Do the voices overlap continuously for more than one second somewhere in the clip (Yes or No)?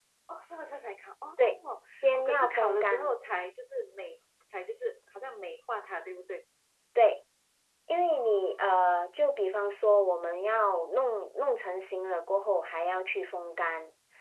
Yes